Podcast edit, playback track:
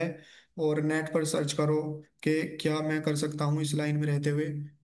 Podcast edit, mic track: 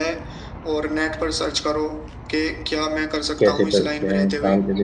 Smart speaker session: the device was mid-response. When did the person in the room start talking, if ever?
3.4 s

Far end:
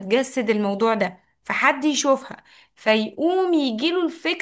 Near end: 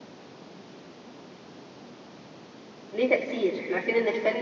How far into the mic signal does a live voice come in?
2.9 s

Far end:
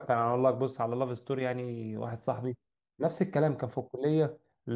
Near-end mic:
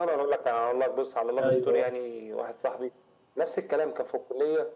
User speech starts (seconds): 1.4 s

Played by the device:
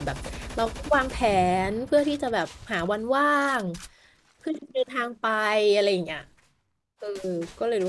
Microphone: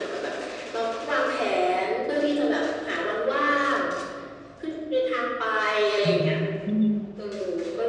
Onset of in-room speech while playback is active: 6.0 s

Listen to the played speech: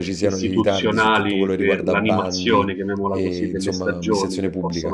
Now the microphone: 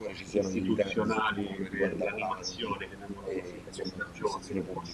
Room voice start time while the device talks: none

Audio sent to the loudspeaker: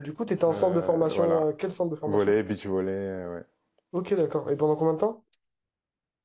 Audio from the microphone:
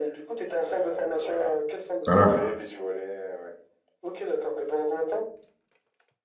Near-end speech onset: 2.0 s

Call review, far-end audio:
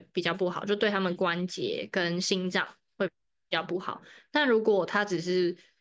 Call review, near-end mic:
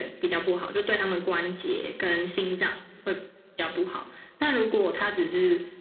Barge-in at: none

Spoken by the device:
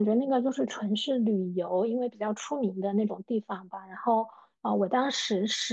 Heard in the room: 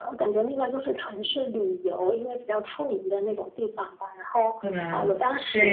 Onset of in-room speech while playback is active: 4.6 s

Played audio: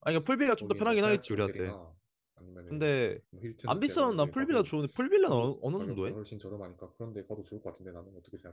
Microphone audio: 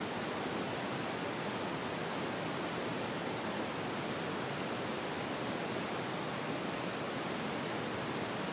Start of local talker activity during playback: none

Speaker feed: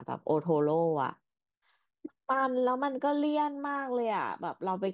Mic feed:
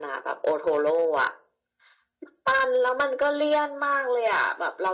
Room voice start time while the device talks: none

